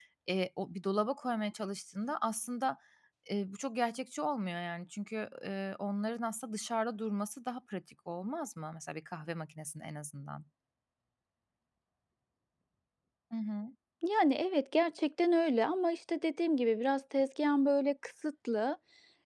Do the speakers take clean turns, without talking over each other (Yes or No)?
Yes